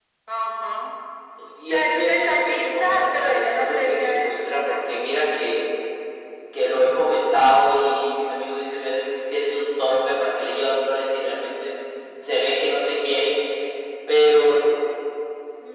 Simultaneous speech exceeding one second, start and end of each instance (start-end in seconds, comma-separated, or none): 1.7-5.0